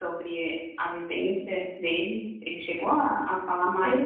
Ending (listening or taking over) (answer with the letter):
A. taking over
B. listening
A